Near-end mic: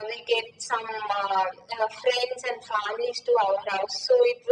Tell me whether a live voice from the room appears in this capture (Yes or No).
No